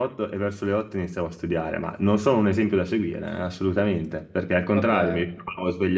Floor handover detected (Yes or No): No